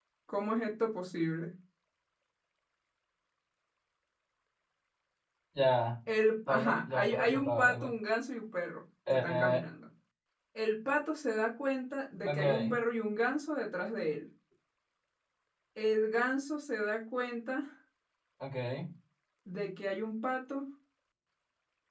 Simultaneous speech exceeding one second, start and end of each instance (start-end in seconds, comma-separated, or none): 6.5-7.9